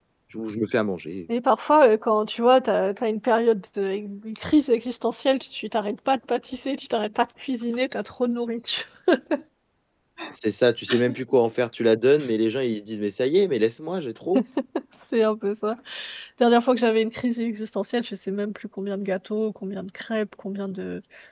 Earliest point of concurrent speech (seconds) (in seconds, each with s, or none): none